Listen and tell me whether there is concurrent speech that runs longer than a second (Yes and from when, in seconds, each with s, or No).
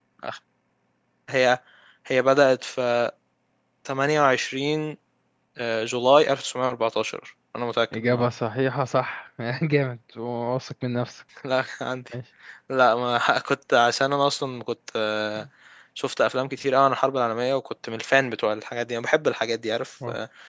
No